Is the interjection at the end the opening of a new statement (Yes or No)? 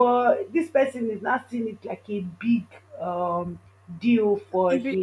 Yes